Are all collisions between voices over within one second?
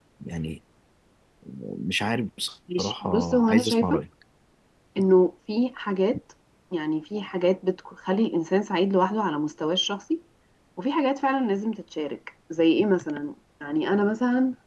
No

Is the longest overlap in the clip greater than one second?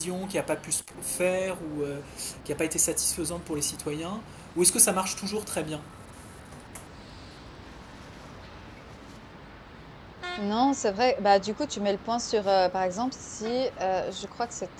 No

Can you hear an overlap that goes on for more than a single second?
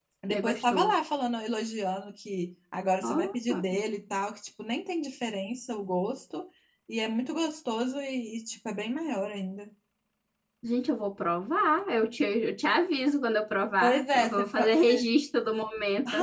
Yes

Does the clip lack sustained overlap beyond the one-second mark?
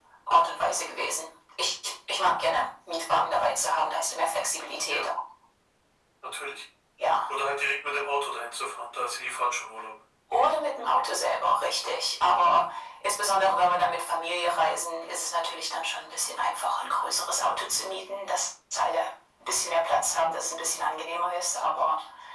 Yes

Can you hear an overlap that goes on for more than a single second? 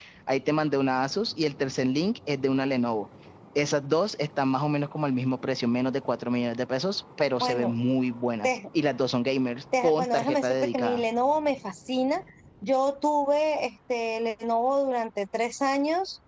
Yes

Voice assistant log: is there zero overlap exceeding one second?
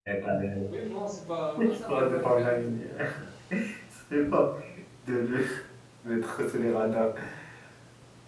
No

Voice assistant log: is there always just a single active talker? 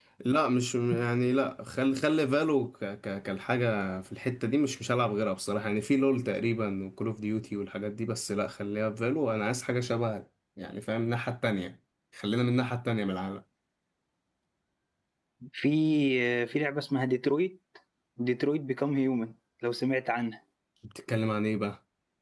Yes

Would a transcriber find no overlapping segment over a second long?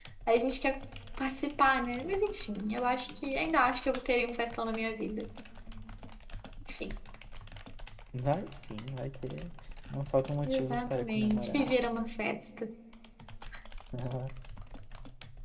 No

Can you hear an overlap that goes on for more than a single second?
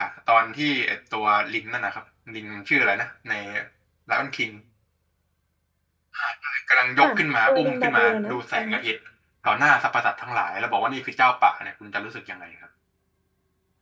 Yes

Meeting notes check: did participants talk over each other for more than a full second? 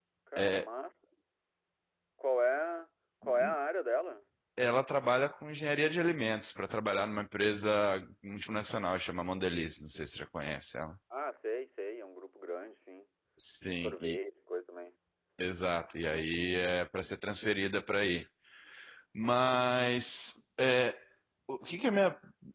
No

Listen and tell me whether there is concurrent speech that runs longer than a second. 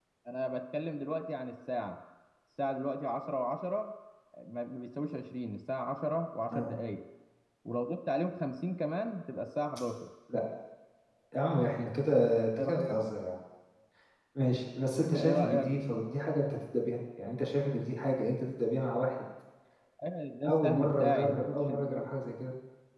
Yes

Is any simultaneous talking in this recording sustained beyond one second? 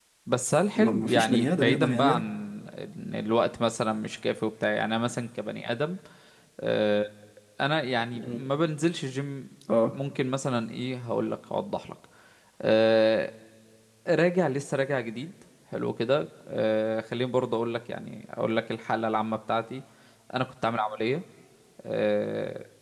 Yes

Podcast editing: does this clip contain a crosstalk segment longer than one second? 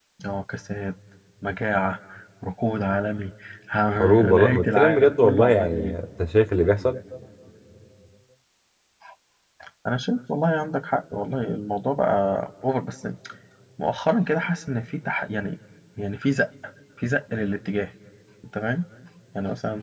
Yes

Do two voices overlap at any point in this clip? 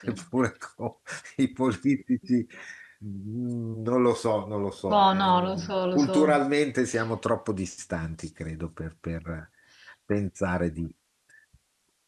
Yes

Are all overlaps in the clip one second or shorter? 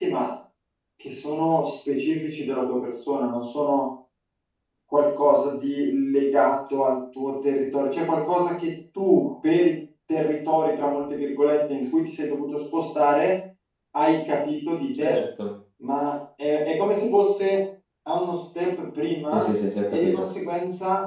Yes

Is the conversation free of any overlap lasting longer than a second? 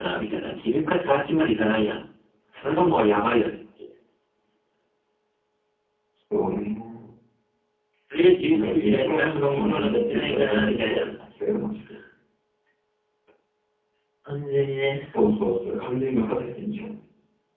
No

